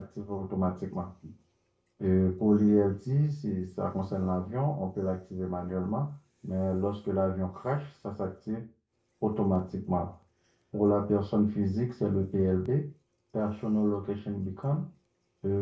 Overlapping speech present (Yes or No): No